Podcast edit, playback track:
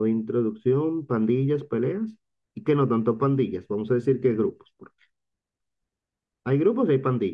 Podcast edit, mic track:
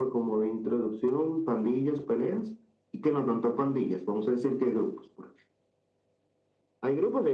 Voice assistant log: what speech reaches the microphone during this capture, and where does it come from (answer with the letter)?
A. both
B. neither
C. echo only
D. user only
C